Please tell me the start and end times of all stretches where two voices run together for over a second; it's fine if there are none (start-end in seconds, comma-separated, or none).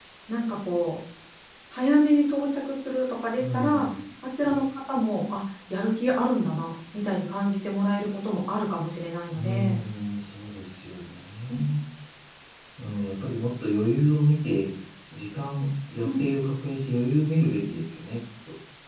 none